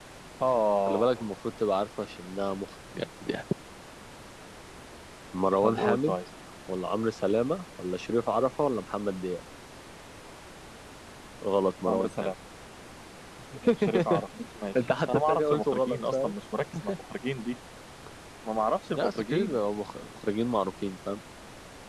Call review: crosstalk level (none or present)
present